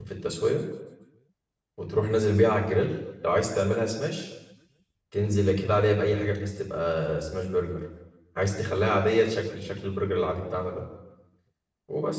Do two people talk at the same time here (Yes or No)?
No